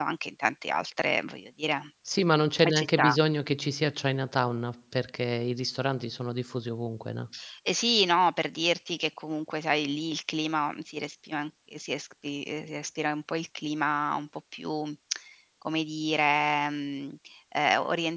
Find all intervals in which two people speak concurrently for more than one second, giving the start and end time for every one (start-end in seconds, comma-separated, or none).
none